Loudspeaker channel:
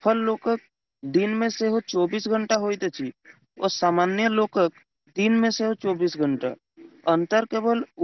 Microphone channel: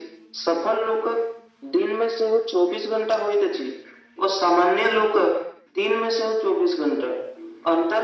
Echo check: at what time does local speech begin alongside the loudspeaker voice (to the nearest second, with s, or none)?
none